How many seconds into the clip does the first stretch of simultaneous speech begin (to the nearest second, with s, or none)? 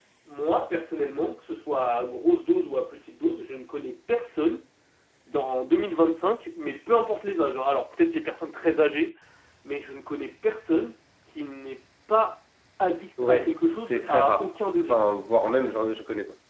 13 s